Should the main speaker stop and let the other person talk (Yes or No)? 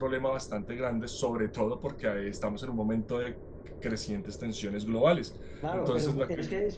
Yes